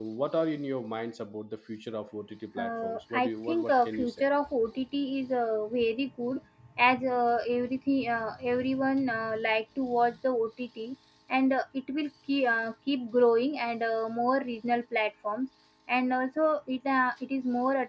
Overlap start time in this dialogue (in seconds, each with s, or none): 2.6 s